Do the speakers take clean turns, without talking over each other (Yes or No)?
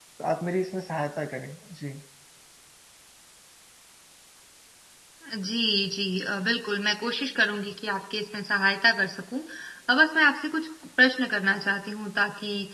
Yes